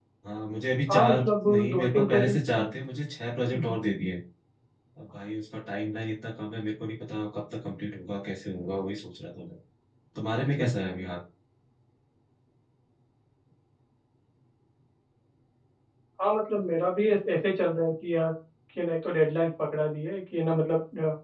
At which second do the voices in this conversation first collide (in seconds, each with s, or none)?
0.9 s